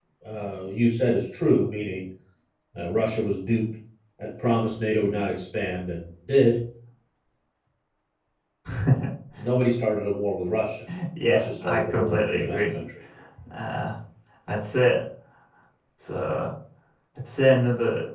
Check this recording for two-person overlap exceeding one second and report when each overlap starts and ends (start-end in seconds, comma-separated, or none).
11.3-12.7